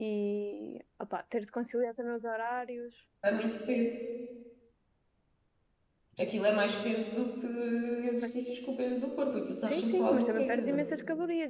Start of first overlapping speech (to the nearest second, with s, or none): 10 s